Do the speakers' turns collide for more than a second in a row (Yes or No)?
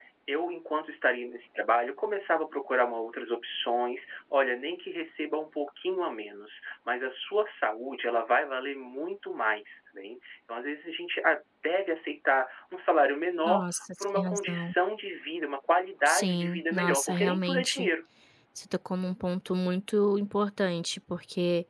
Yes